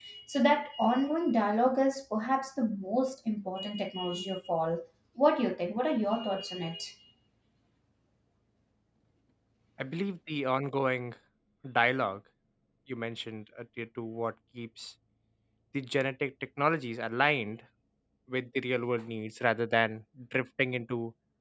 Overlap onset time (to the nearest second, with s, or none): none